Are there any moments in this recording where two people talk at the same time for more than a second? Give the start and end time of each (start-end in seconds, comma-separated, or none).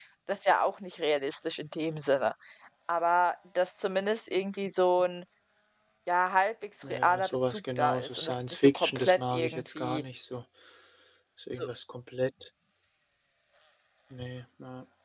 6.9-10.0